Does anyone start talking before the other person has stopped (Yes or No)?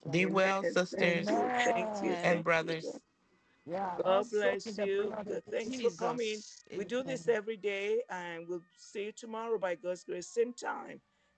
Yes